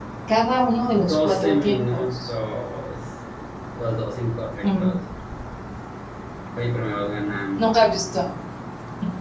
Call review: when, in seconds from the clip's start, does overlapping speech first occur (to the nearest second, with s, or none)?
1 s